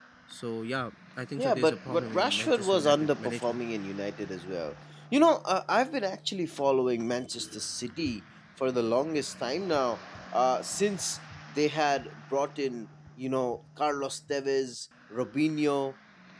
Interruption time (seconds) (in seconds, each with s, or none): 1.4 s